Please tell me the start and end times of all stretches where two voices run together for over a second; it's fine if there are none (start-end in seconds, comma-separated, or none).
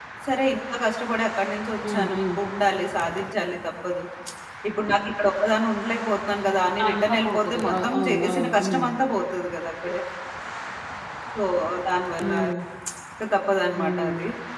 6.8-8.8